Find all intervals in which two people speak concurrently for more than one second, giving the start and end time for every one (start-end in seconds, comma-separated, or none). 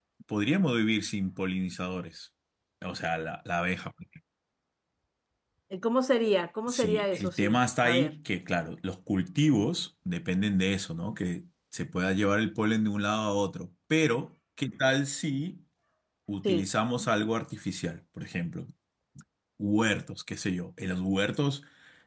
6.7-8.1